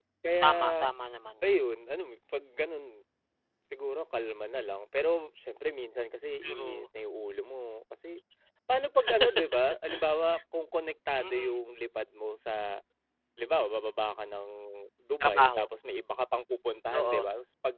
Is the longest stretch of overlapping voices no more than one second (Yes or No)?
Yes